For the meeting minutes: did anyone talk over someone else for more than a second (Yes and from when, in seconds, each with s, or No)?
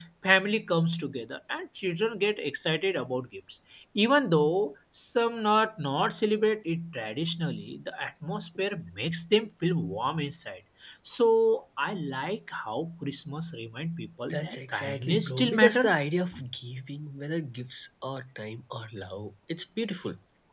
Yes, from 14.3 s